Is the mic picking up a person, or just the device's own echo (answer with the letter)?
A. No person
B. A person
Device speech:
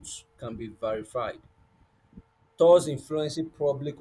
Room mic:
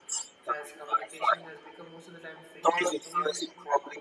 B